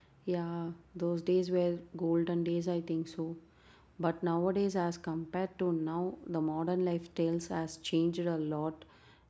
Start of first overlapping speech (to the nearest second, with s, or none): none